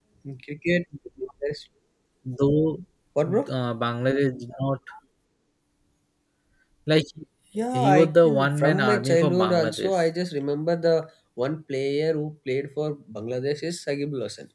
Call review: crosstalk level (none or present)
present